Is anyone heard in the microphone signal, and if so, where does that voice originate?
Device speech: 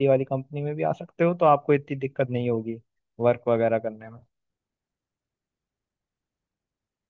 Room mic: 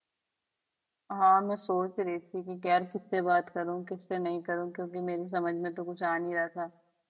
user only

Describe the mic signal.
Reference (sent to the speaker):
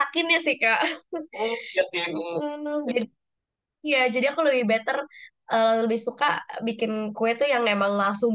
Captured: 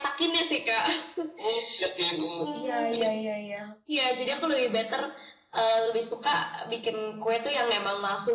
both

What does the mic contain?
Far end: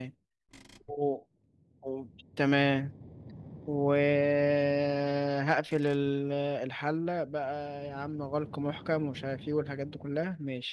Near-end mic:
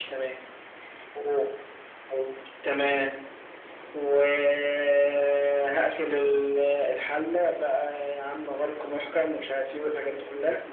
echo only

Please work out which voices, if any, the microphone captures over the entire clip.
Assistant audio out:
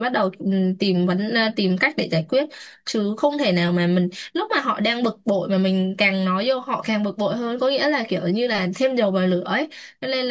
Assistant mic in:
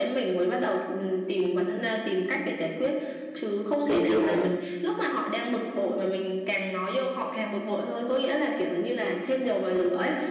both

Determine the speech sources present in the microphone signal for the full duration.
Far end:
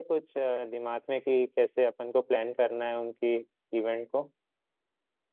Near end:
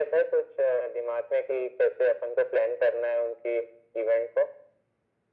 echo only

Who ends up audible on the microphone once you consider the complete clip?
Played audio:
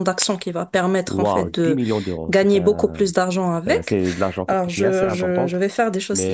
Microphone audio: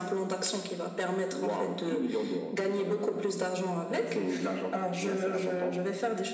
echo only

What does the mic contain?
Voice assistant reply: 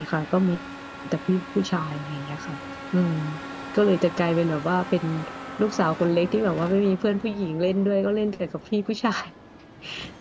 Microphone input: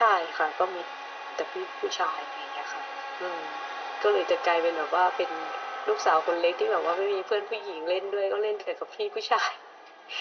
echo only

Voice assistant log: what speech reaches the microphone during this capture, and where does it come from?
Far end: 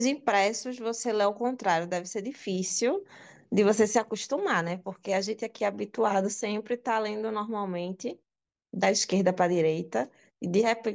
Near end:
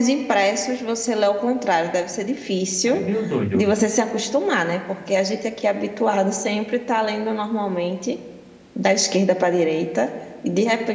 both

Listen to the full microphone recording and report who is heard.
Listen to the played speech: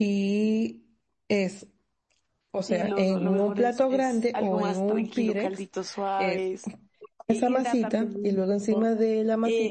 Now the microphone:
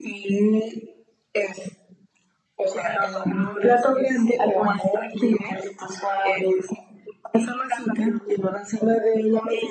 echo only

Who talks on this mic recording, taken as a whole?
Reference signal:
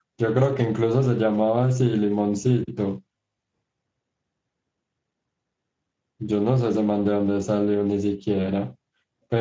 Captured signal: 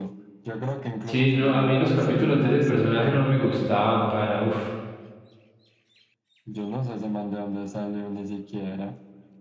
both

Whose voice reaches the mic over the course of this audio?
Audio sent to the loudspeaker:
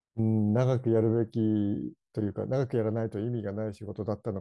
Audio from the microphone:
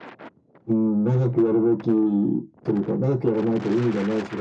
echo only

